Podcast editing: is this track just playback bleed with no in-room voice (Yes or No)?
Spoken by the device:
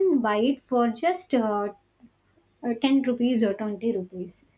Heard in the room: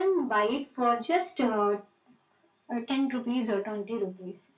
Yes